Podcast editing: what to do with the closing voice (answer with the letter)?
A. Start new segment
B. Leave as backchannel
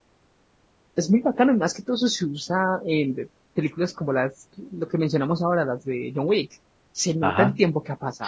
A